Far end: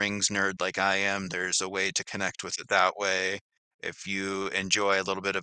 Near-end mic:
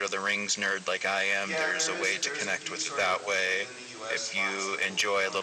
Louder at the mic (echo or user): echo